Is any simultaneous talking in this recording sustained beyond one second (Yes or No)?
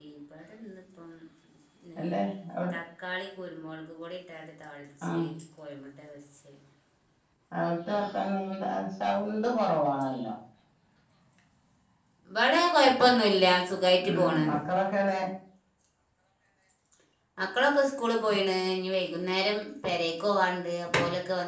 No